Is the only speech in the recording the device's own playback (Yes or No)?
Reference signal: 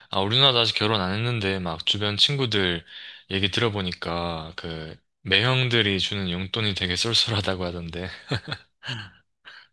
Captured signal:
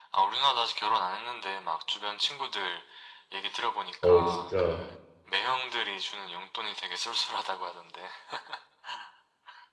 No